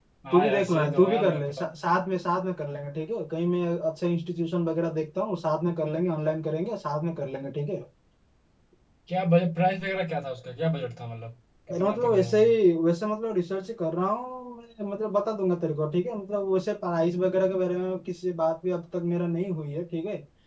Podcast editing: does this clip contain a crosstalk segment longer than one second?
Yes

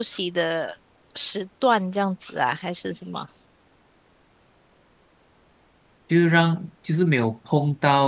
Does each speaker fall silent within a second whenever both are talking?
Yes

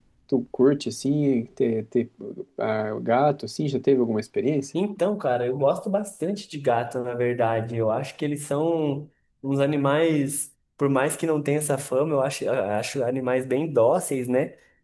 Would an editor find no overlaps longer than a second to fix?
Yes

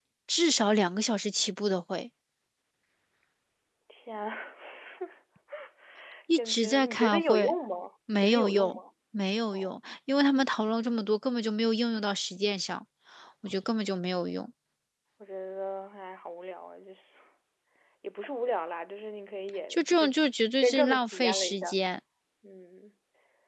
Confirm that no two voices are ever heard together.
No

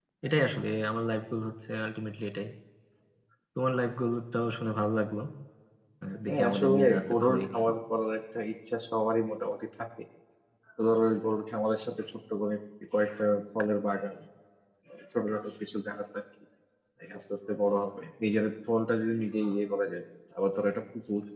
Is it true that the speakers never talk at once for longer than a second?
No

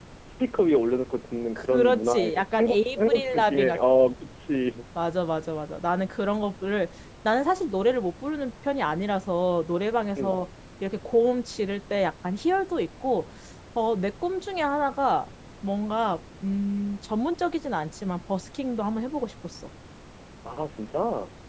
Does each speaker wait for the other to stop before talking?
No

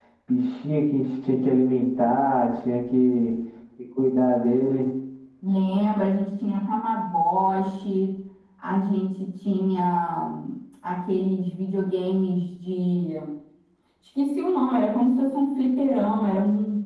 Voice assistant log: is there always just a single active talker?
Yes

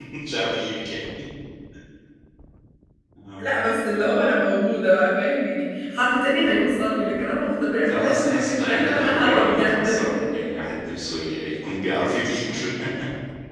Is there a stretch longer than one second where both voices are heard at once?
Yes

